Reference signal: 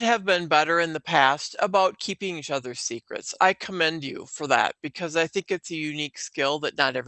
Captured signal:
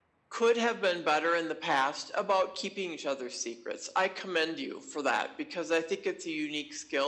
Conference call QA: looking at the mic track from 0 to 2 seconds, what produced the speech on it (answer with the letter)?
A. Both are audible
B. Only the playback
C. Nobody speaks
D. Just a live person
B